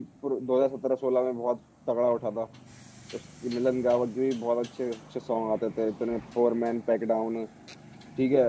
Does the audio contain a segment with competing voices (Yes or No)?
No